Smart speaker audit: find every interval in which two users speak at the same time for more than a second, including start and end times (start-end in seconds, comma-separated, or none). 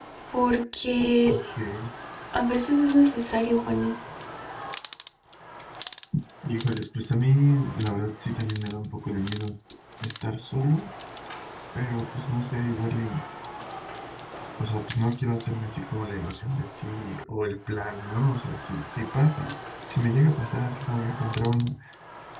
none